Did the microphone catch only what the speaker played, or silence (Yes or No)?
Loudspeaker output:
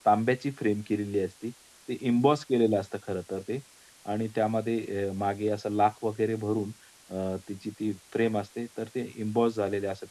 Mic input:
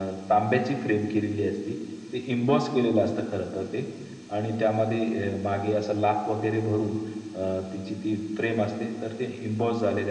Yes